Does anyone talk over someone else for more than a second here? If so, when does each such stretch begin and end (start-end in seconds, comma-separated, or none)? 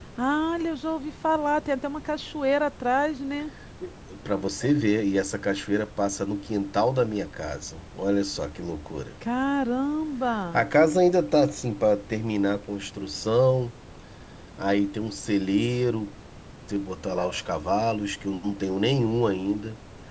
none